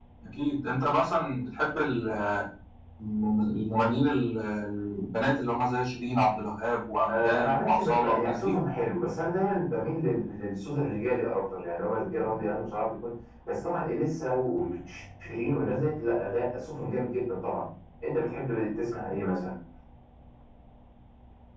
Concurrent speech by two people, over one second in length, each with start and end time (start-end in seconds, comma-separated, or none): 7.1-8.6